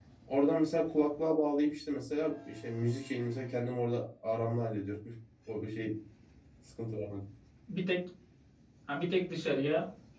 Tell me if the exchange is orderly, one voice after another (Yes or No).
Yes